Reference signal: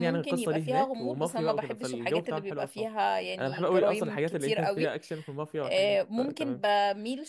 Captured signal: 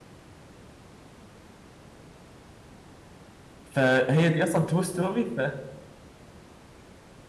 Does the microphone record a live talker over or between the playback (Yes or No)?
Yes